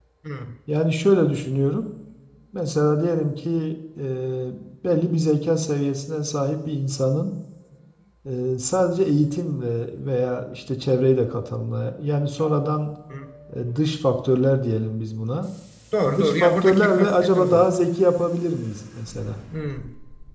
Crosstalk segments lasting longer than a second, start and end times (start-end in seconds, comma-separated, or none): 16.1-17.6